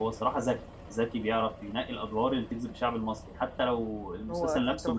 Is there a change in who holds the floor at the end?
Yes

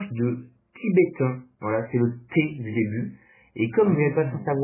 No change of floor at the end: Yes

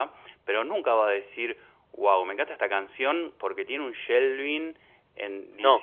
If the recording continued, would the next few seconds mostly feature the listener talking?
No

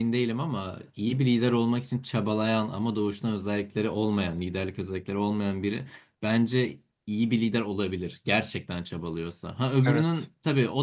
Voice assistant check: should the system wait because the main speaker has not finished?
Yes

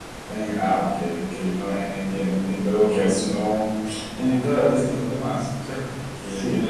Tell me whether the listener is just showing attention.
Yes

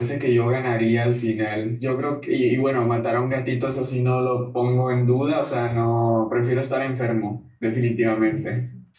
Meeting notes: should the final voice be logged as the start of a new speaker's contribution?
Yes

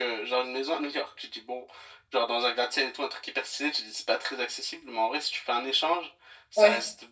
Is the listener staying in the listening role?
Yes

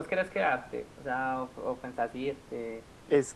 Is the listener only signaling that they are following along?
No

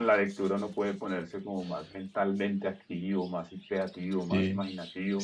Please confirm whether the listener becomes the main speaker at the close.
Yes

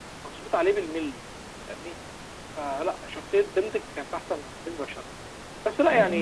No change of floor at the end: Yes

